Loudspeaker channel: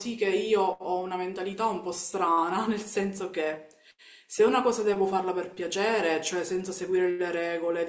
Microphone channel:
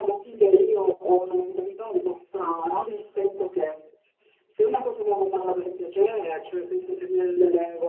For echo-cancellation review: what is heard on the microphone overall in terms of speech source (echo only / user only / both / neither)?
echo only